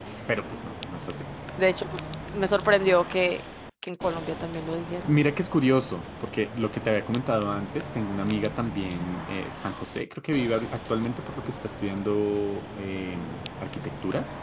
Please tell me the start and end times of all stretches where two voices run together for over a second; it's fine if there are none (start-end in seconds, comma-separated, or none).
none